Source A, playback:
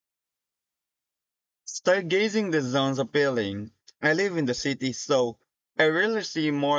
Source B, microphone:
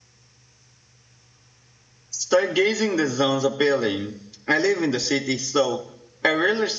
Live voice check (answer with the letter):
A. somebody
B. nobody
B